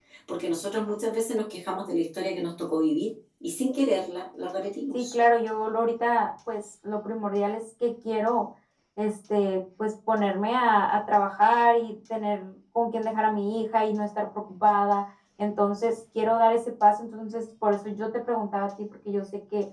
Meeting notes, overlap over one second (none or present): none